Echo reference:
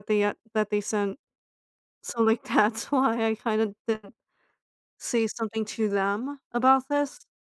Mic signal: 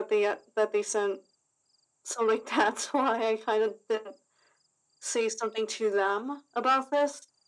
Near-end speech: none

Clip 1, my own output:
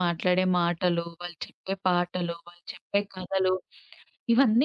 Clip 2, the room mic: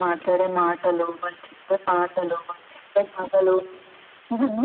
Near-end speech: none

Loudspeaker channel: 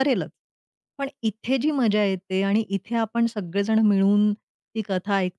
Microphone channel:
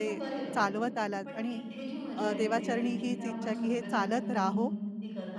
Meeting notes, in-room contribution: present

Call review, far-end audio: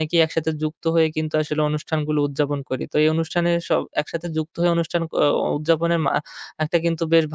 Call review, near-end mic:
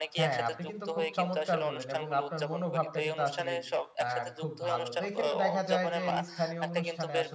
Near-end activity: present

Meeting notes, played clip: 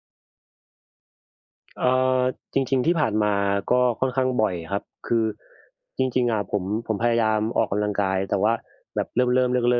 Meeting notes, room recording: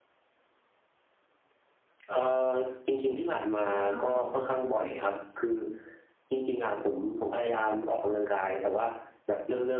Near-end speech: present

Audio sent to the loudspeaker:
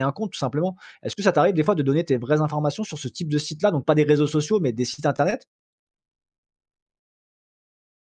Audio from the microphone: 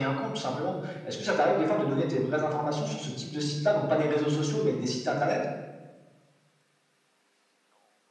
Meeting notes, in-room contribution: none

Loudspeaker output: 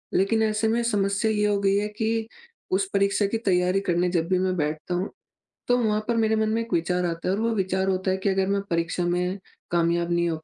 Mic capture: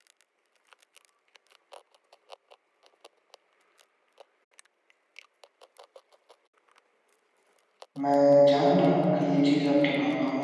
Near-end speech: present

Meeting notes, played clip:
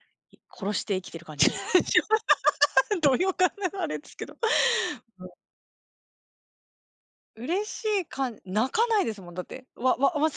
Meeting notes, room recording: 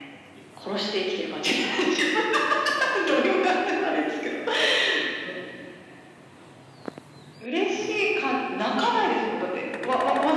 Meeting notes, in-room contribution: none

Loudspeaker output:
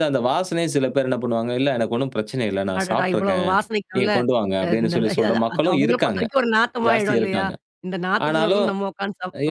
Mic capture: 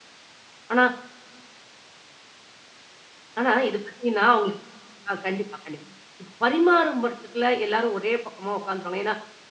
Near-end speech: present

